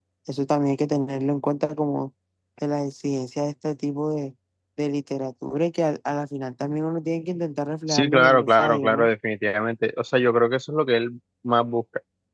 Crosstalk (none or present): present